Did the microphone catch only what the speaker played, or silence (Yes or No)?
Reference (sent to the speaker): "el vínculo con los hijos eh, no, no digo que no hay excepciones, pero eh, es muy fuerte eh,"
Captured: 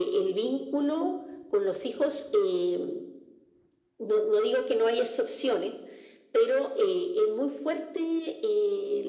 Yes